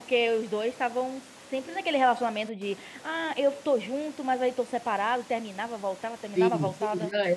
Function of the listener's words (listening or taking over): taking over